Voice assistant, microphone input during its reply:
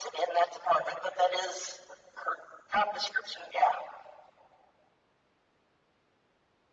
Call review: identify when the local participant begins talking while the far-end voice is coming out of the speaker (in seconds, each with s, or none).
none